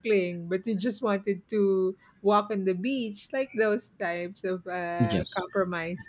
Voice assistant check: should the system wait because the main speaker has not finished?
Yes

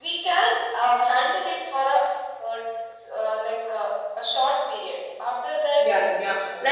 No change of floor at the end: No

